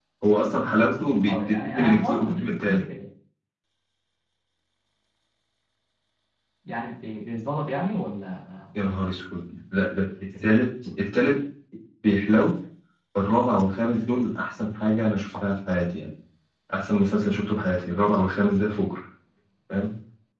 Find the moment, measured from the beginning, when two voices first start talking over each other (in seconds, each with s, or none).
1.3 s